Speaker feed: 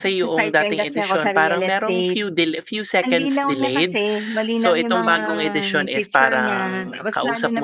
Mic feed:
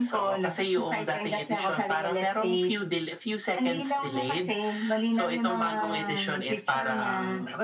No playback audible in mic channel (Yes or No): No